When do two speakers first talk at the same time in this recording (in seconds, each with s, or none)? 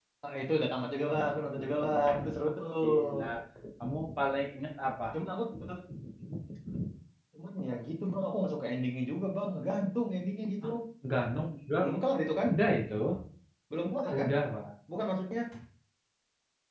1.1 s